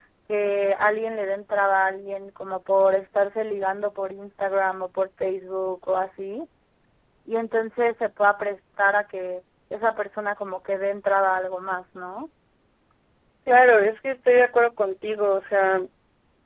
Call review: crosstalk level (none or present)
none